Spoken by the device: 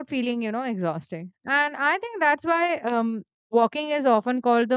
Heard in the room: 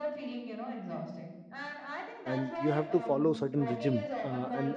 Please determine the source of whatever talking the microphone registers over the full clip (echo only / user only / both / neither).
both